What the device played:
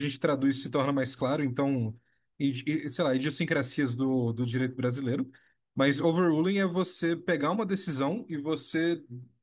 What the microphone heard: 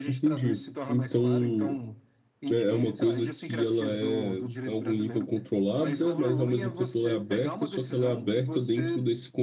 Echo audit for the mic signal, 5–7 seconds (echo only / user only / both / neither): both